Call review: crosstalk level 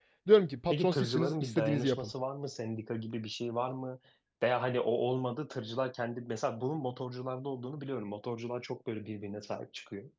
present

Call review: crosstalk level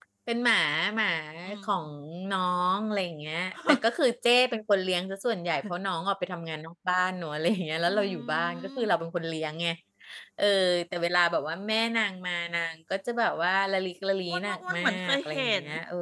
present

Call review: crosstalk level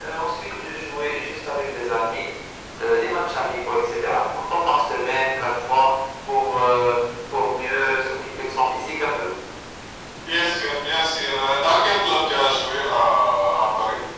none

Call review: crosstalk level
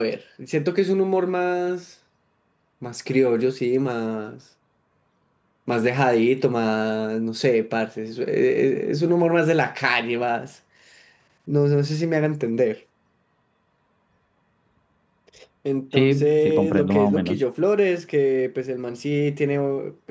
present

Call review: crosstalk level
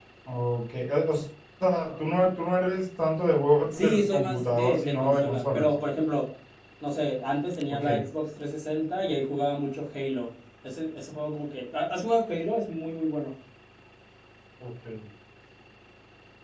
present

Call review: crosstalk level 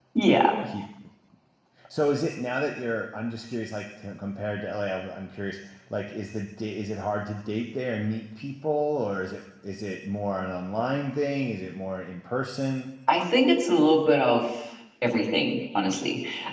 none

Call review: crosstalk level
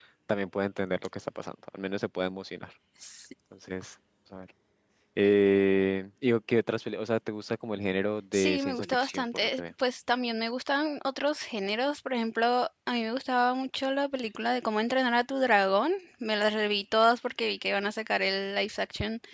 present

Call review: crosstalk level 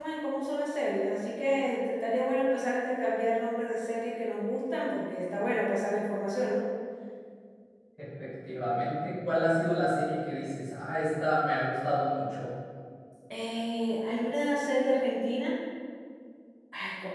none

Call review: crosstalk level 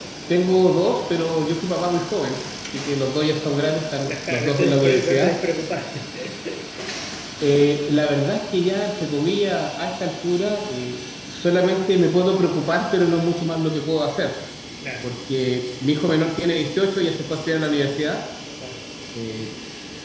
present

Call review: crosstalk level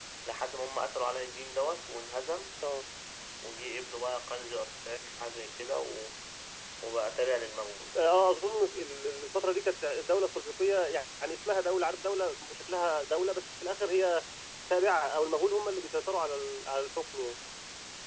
none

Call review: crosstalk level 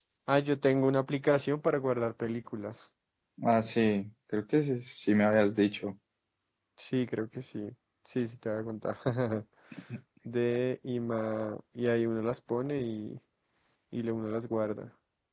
none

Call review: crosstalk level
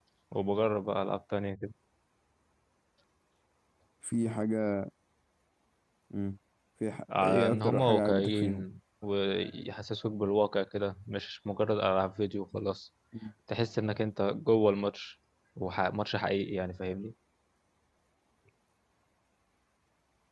present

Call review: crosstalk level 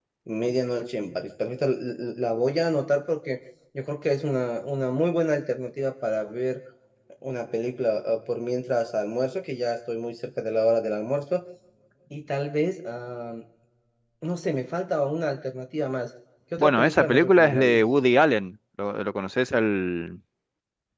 present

